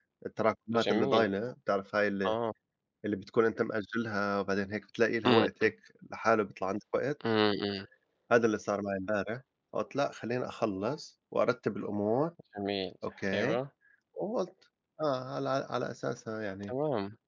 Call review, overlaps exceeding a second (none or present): none